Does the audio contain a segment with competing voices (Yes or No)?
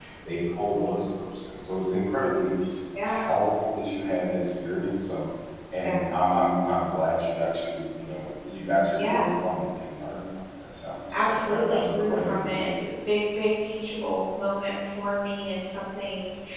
Yes